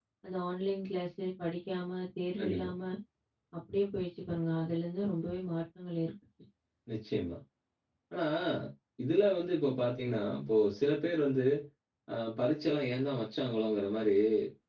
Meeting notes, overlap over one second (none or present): none